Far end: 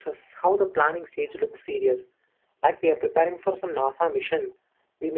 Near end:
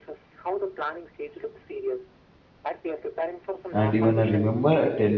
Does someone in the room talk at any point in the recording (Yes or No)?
Yes